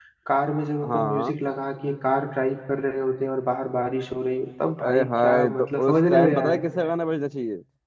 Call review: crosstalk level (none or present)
present